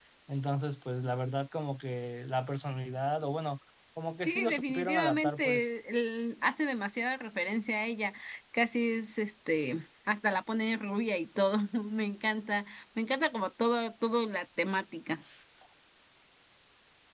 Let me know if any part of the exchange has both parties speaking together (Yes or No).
Yes